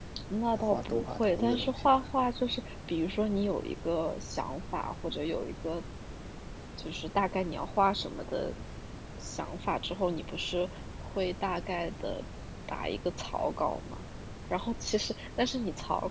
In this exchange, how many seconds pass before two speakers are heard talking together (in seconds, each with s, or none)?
0.5 s